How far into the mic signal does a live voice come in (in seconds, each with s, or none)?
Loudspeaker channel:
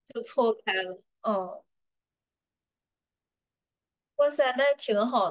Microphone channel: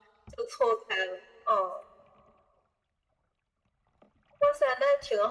none